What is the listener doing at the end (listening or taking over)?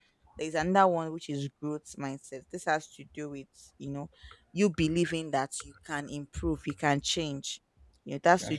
listening